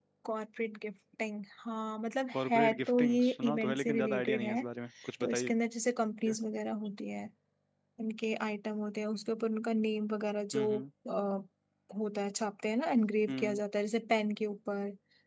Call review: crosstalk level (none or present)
present